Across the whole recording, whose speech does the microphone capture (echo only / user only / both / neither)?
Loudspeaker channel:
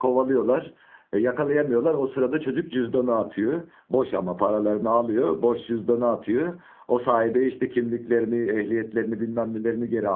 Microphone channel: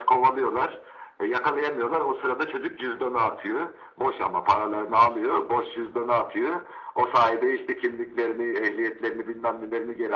echo only